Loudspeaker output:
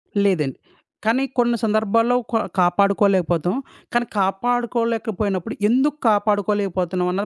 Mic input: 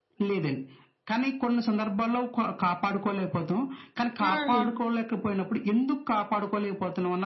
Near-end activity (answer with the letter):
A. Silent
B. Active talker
B